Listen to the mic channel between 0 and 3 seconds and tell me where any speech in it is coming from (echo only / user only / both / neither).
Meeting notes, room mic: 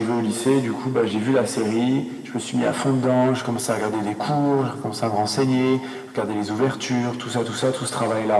echo only